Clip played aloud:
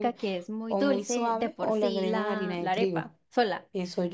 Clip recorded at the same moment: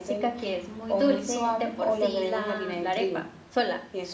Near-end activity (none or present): none